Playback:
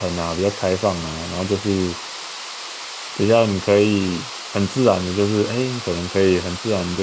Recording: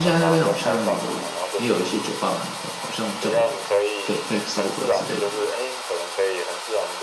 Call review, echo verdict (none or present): present